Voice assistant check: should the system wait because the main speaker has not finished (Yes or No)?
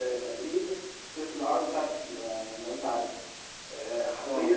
Yes